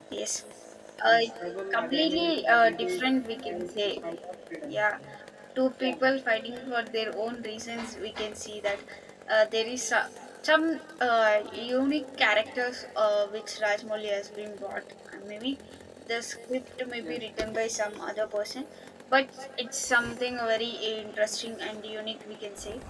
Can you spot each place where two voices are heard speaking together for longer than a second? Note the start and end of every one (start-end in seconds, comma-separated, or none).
1.7-3.0